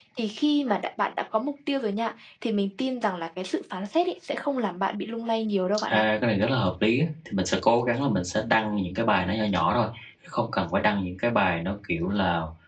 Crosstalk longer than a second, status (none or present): none